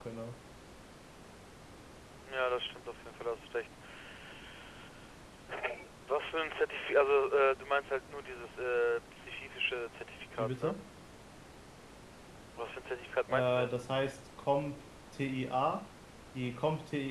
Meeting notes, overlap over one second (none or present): none